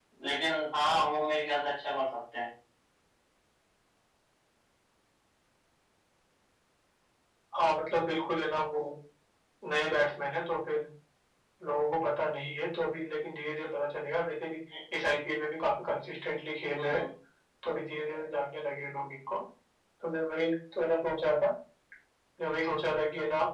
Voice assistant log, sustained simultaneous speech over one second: none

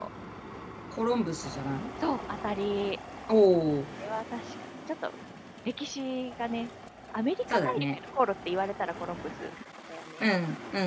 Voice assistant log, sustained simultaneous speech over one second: none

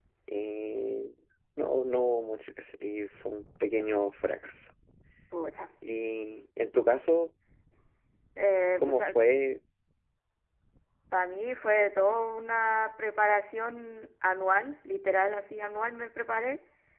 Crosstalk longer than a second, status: none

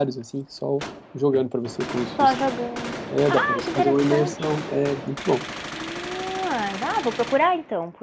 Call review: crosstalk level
present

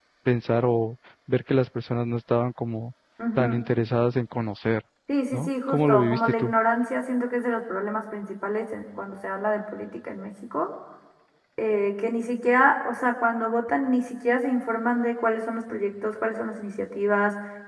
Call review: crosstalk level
present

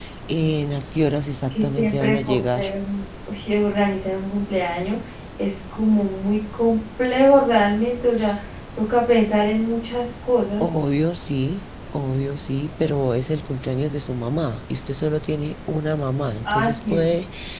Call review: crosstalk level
present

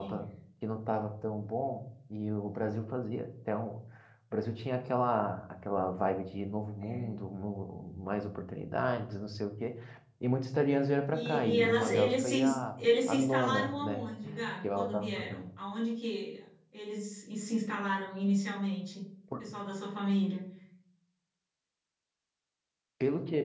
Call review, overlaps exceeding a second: present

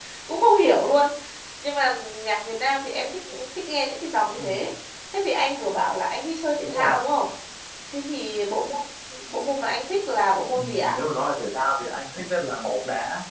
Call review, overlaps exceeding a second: none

